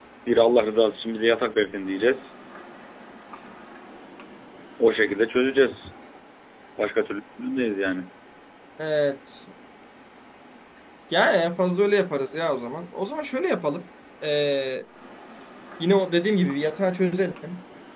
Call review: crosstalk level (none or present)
none